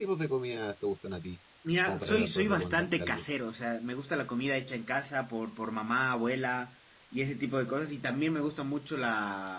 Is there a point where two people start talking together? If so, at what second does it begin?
1.9 s

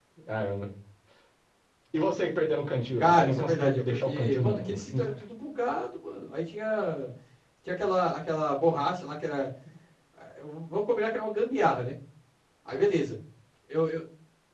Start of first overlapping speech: 3.0 s

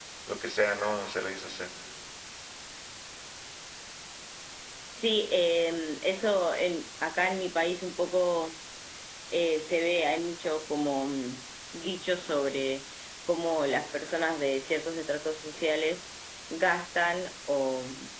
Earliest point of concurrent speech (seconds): none

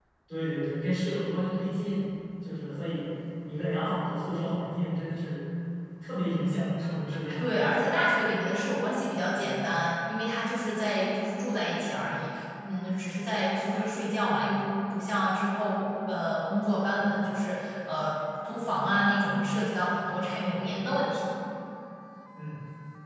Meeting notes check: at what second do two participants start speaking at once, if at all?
none

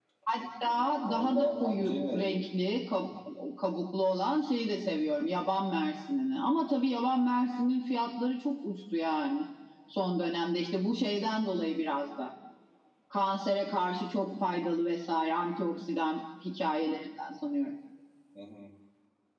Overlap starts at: 1.0 s

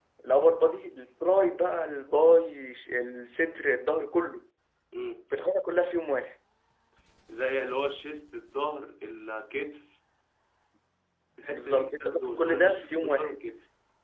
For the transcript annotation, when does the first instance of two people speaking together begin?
11.5 s

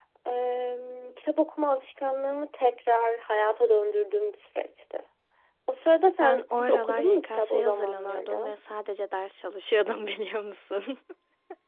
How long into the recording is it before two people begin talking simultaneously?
6.2 s

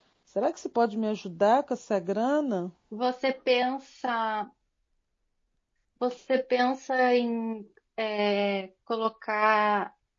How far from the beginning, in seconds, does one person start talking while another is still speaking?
none

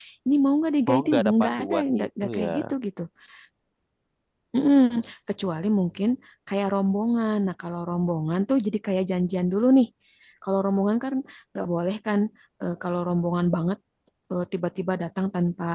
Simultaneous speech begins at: 0.9 s

